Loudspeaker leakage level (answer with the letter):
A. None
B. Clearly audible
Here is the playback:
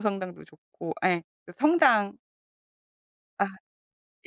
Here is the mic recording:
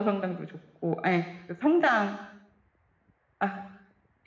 B